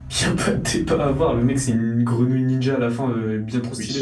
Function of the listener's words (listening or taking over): taking over